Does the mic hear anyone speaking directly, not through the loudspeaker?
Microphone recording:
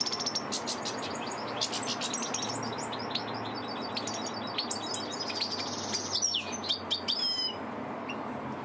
No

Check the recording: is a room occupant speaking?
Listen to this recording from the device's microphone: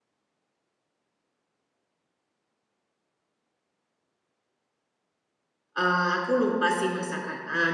Yes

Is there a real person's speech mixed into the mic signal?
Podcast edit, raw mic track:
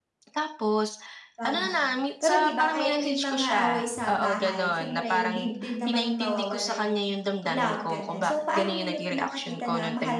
Yes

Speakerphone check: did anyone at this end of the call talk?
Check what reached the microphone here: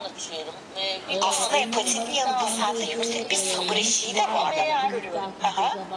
Yes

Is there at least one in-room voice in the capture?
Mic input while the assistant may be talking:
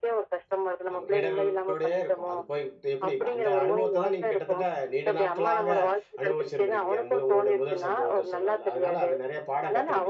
Yes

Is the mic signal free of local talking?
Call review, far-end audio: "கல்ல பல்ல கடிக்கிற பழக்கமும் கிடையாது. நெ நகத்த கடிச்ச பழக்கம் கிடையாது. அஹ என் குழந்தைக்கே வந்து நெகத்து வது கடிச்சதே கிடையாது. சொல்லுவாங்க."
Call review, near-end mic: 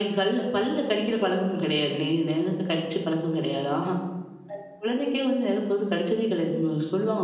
Yes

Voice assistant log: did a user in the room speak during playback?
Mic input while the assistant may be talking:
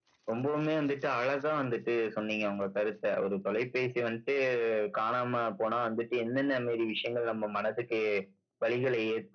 No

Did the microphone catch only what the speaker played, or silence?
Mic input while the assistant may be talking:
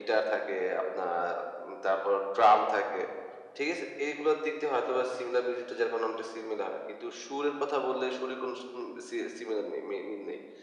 Yes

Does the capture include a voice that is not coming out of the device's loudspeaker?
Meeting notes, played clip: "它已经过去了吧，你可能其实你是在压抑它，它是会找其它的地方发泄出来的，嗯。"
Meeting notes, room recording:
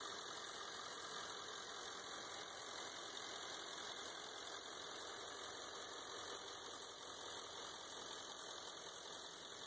No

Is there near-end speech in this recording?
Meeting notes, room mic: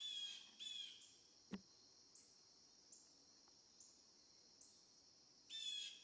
No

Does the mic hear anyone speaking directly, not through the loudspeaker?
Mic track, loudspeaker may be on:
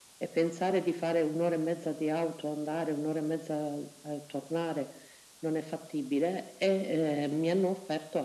No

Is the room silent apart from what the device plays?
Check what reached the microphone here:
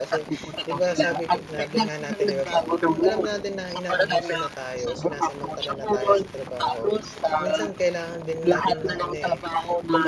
No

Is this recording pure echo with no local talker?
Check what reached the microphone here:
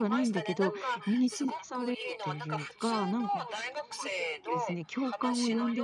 No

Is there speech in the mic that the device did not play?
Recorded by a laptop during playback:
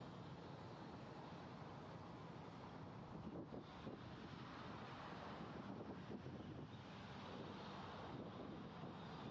No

